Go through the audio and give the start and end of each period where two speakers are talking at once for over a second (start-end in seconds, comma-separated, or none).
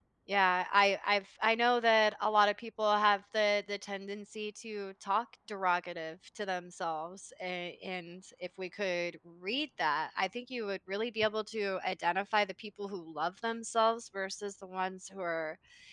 none